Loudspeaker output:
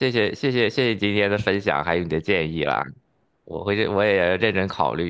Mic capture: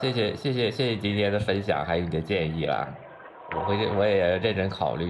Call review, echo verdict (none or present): present